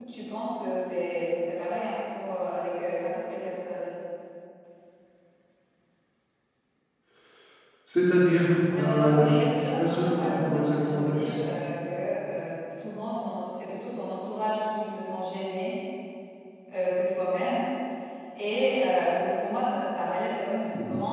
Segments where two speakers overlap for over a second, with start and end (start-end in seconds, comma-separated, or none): 8.8-11.5